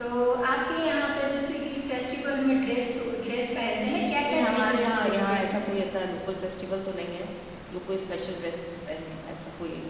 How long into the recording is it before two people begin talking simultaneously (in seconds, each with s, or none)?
4.3 s